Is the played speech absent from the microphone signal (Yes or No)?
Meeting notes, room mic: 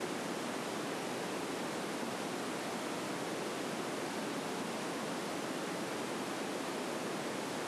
Yes